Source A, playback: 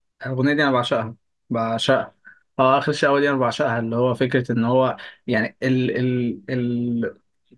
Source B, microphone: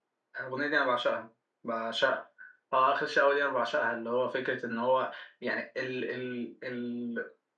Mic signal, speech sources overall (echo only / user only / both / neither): echo only